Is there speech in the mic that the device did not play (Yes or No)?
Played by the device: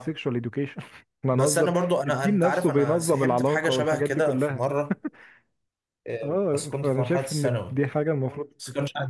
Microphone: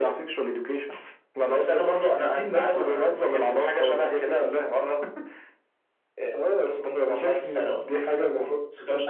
No